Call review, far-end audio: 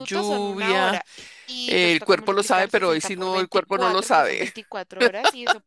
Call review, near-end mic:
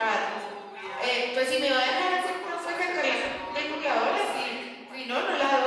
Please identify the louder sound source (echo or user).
user